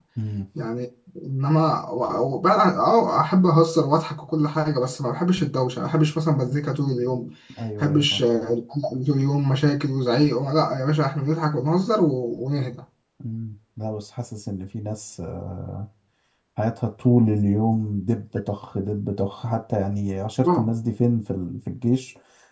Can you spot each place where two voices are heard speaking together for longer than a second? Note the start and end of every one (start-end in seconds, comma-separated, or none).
none